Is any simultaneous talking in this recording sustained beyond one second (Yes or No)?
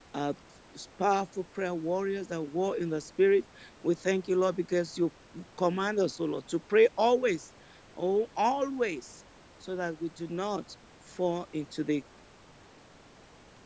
No